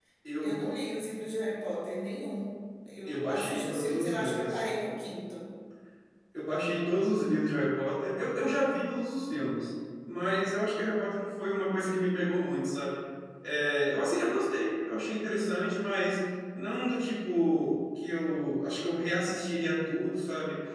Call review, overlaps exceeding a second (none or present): present